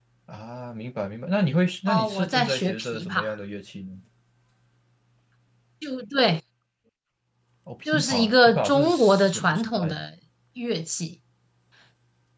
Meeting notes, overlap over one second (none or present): present